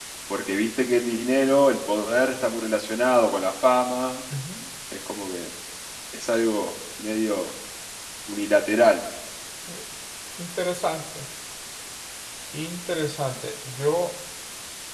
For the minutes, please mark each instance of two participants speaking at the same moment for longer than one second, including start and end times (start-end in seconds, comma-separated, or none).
none